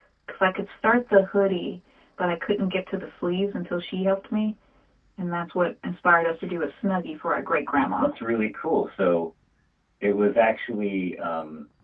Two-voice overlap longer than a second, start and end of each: none

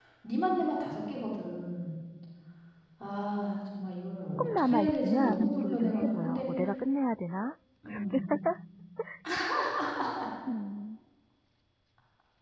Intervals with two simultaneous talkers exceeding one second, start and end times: 4.4-6.5

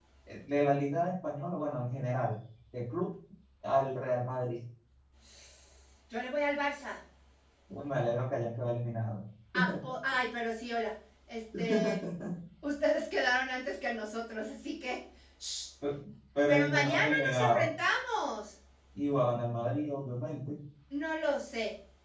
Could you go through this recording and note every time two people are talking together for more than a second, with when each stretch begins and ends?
16.5-17.7

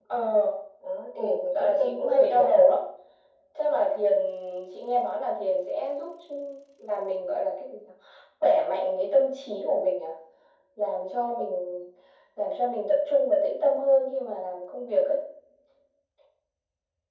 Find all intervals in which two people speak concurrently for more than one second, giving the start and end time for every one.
1.2-2.5

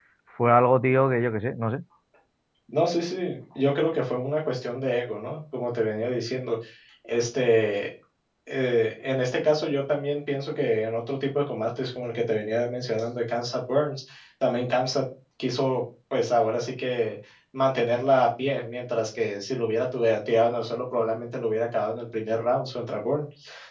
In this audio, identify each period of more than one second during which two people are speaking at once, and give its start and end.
none

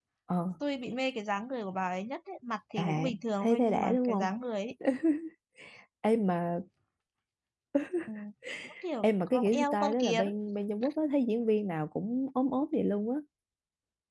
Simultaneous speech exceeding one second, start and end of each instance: 2.8-4.3, 9.0-10.2

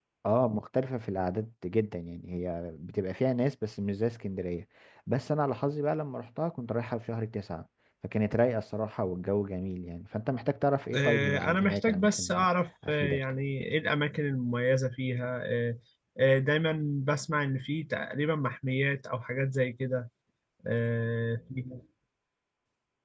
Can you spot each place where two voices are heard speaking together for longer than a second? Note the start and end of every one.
10.9-12.5

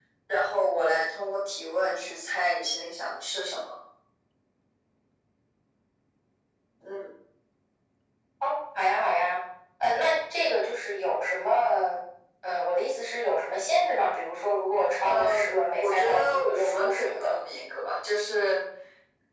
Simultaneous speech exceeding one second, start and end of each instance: 15.7-17.4

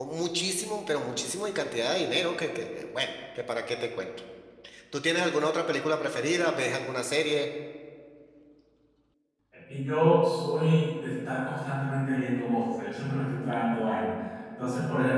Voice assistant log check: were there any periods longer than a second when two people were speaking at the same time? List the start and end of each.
none

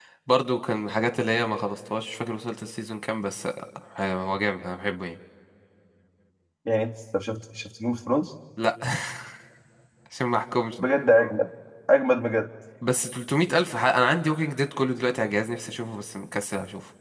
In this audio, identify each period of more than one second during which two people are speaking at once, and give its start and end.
none

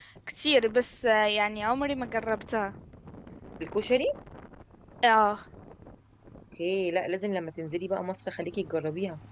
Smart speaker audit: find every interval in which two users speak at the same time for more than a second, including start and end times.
none

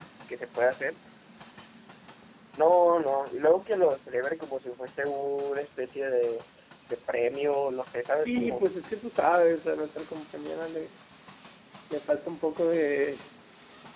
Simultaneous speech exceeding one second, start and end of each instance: none

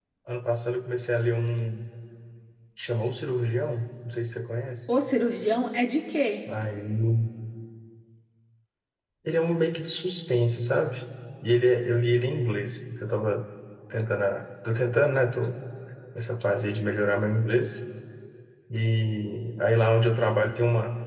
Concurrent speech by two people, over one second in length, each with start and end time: none

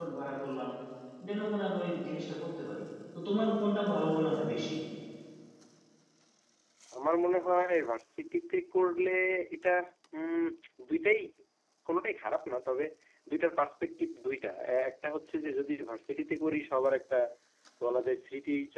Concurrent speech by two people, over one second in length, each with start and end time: none

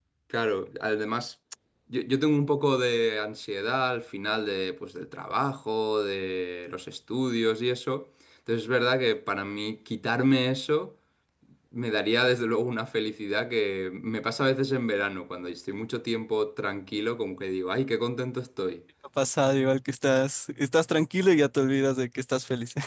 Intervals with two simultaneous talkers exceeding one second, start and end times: none

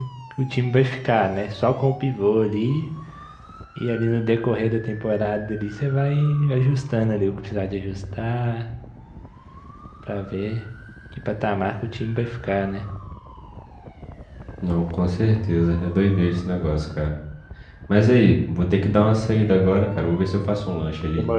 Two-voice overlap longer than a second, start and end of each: none

